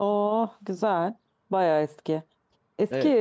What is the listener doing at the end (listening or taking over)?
listening